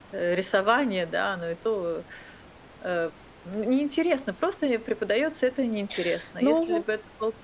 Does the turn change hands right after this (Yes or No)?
No